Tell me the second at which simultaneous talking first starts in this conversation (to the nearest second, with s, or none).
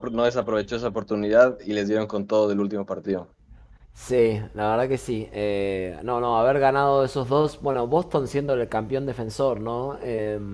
none